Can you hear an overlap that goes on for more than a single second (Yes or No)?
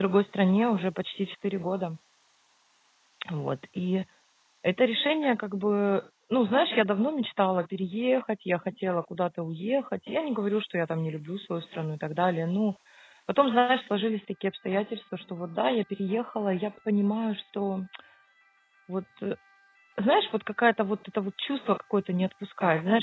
No